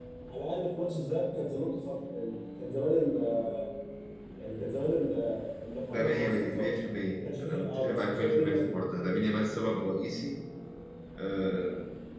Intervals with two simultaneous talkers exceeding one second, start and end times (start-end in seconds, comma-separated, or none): 5.9-8.7